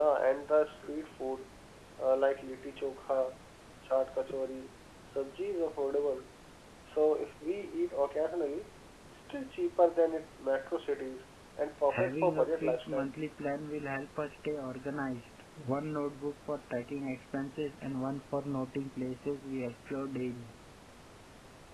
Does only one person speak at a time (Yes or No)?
No